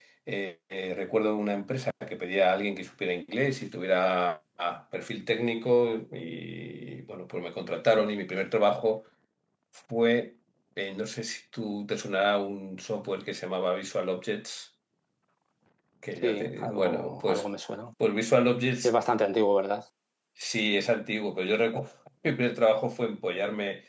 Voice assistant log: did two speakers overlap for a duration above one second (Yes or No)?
Yes